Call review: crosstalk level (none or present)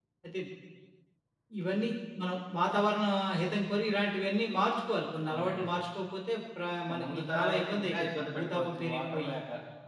present